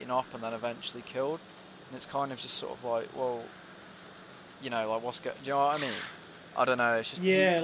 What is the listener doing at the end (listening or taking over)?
taking over